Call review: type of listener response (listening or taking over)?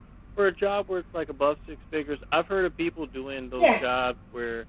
listening